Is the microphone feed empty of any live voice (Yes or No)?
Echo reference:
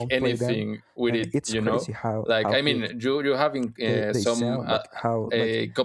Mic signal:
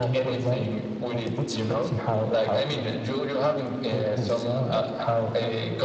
Yes